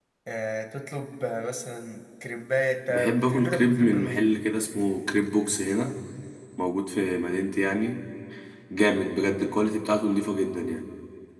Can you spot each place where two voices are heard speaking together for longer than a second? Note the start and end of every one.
2.9-4.3

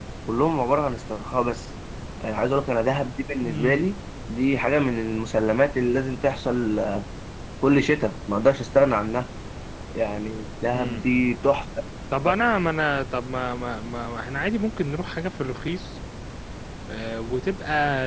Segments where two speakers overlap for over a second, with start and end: none

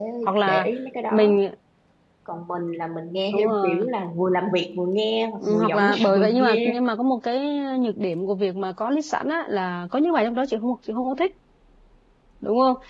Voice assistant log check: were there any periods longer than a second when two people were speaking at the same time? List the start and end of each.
5.4-6.8

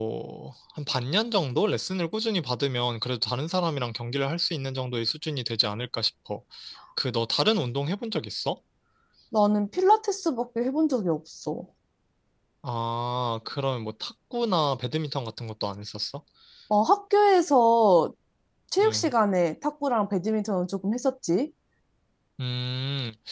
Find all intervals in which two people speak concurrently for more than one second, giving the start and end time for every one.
none

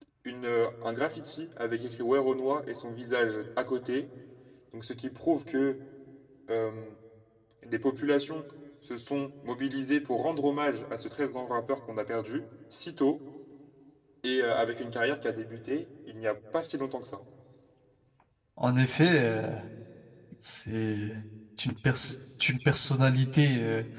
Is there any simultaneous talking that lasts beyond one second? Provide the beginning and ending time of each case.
none

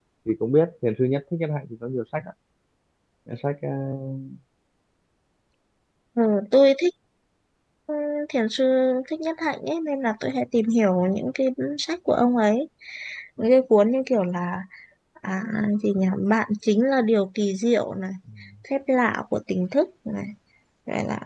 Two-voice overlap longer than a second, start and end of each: none

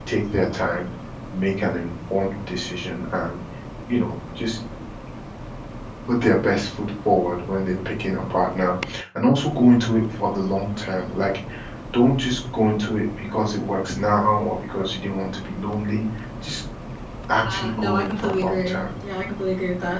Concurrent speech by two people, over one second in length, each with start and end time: 17.5-18.8

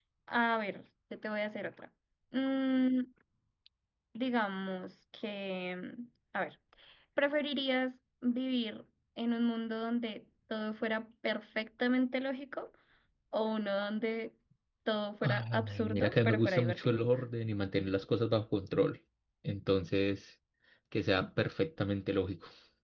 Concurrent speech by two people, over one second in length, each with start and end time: 15.2-17.0

